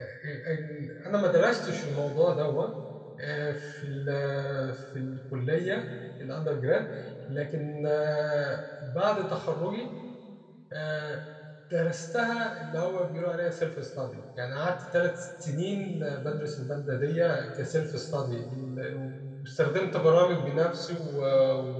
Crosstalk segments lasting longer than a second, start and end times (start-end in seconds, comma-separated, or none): none